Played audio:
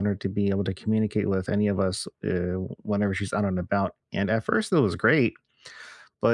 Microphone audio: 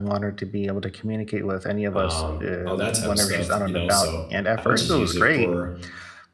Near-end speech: present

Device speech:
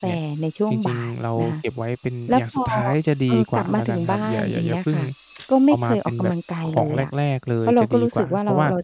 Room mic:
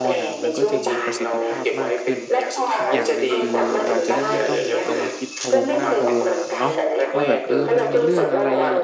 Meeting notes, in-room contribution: present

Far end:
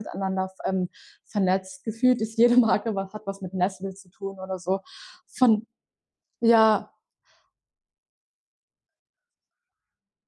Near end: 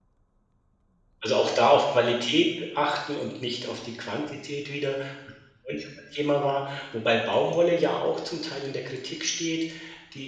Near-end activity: present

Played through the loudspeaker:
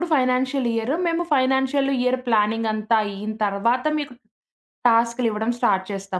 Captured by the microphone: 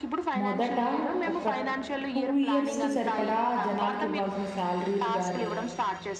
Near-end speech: present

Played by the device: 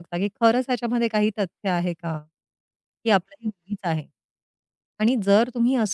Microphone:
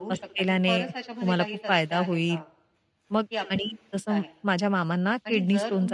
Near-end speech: present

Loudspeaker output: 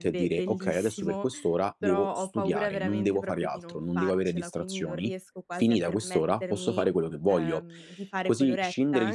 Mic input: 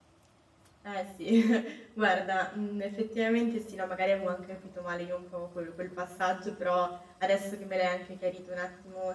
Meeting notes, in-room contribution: present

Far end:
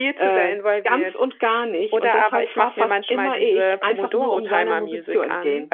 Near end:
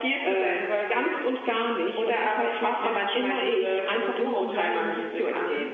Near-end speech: none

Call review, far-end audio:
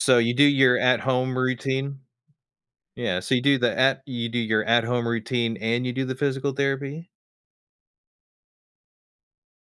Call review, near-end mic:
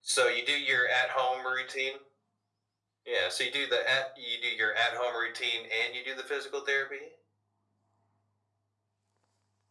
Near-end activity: none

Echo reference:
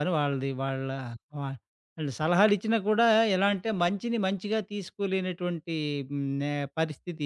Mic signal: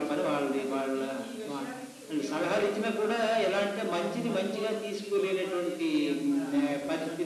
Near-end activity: present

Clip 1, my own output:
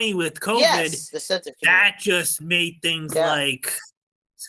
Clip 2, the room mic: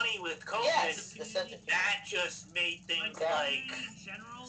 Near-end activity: present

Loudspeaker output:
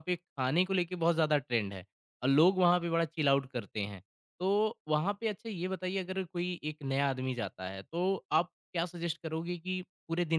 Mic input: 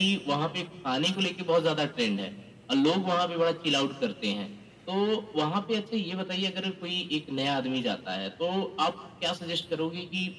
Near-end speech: none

